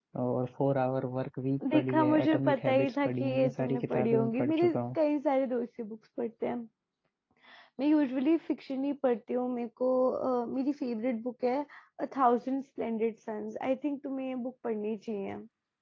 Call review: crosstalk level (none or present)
present